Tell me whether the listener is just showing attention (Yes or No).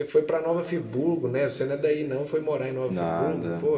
No